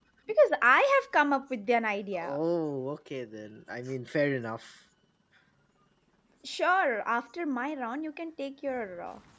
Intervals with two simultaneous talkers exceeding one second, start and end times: none

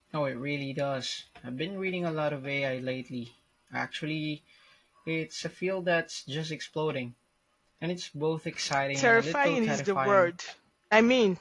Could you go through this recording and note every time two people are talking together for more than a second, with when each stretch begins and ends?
8.9-10.3

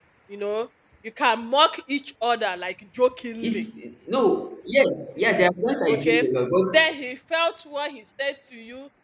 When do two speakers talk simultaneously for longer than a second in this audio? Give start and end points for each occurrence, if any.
none

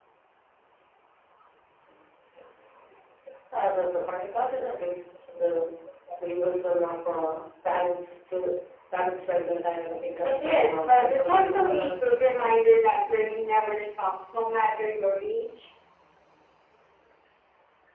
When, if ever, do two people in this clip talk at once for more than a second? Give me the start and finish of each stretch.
10.2-12.2

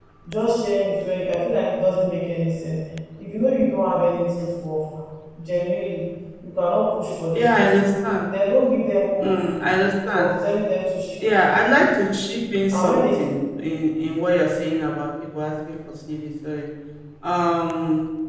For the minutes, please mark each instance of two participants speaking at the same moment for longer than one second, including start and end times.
none

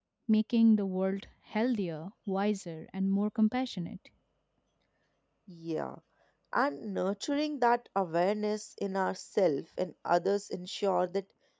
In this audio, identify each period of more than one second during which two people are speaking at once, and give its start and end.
none

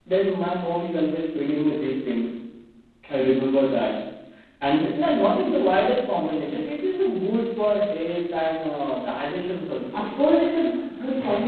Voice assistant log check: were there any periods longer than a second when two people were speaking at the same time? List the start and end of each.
none

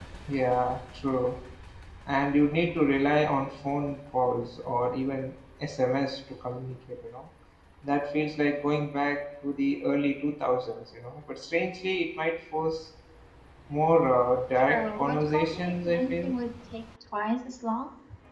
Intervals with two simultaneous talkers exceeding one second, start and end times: 14.6-16.3

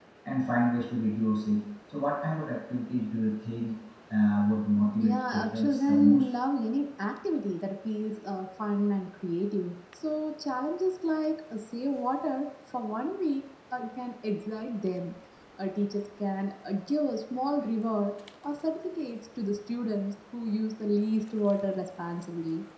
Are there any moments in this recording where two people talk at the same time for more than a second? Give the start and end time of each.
5.0-6.3

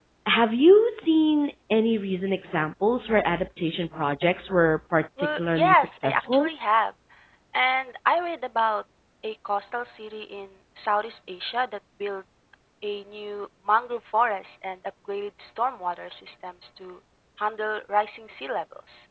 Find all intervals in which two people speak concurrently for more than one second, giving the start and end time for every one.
5.2-6.5

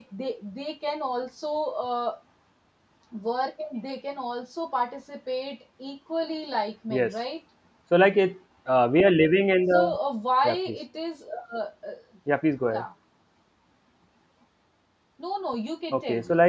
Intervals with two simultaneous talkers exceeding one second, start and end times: none

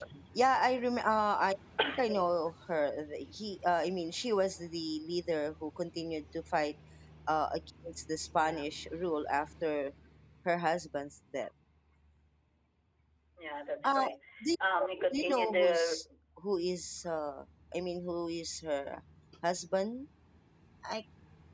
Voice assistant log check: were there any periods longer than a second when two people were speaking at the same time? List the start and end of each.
14.8-16.0

